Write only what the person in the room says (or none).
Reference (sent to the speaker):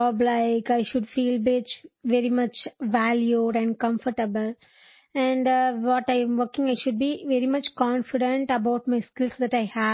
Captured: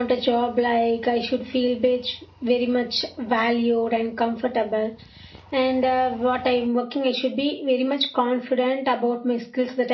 none